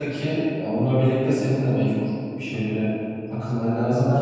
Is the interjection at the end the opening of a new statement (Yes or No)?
No